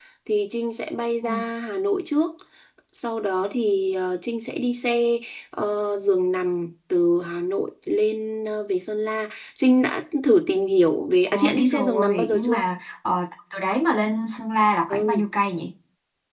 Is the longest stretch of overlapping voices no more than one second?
No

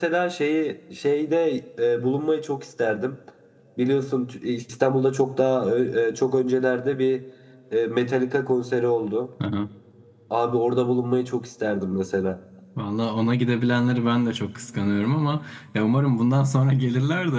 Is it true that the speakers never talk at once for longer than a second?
Yes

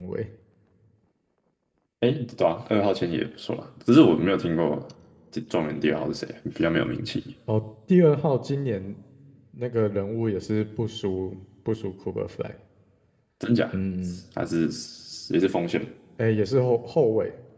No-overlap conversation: Yes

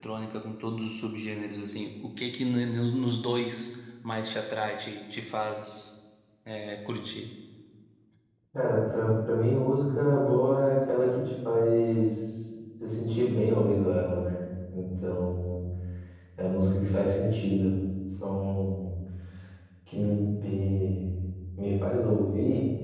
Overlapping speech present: No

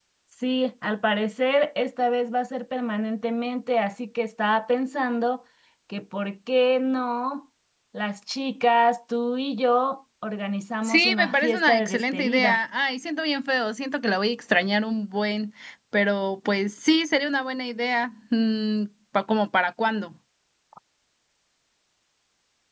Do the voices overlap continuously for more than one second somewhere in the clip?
Yes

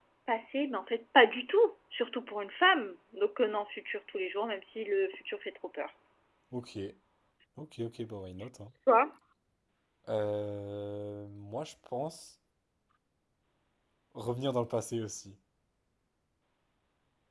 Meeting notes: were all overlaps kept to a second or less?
Yes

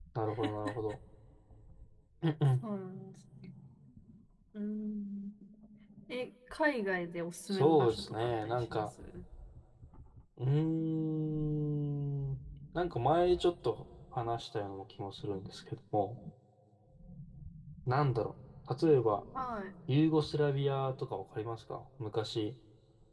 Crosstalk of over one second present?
Yes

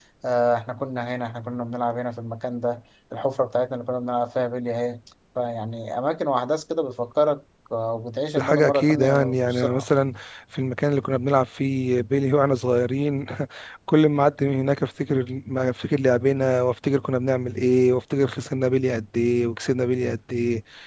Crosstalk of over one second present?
Yes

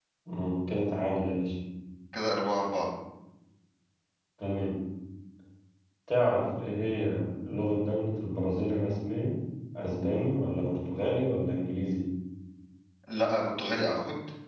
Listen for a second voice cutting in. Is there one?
No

